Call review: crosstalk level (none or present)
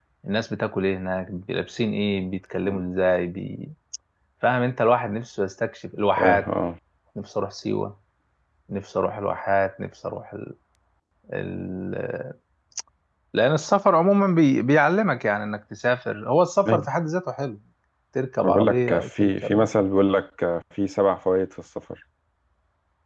present